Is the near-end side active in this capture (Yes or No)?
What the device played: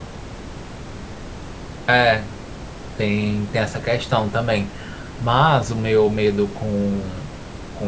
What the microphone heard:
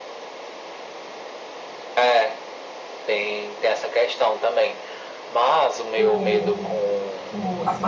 Yes